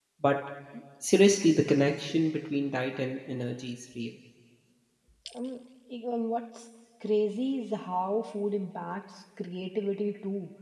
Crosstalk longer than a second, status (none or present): none